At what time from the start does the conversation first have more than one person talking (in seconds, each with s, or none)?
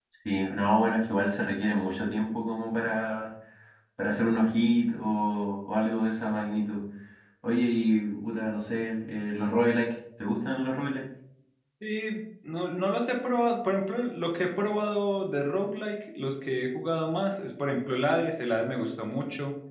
none